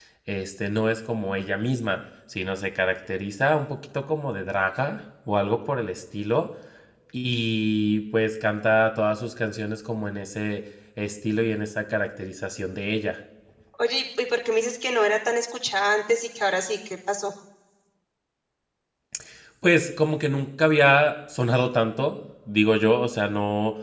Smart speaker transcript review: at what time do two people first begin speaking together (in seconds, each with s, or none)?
none